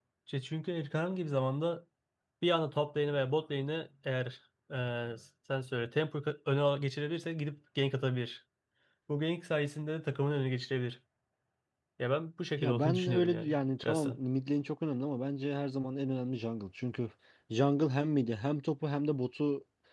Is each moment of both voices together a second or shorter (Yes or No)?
No